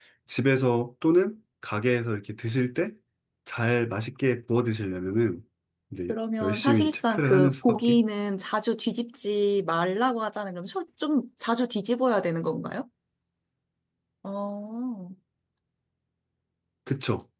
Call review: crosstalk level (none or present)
present